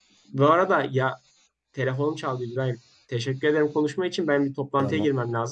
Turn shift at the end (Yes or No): No